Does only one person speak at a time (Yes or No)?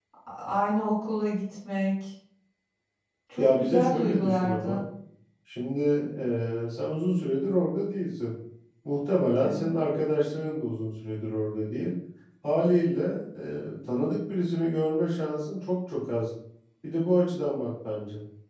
No